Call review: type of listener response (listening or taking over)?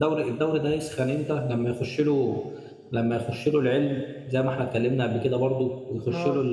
listening